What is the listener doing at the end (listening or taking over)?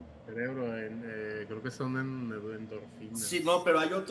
taking over